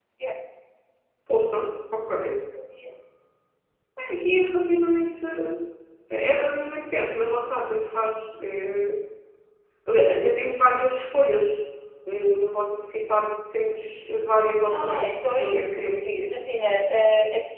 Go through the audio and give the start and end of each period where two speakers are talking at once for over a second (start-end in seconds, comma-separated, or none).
14.7-16.3